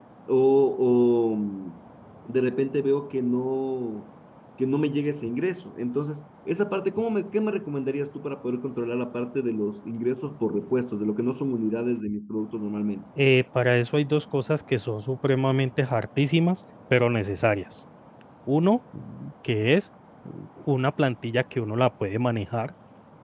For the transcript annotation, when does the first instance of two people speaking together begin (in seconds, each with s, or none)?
none